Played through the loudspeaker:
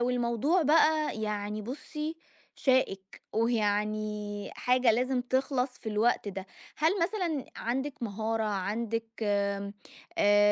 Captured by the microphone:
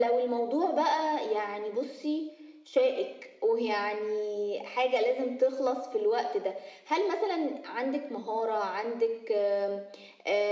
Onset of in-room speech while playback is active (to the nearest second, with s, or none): none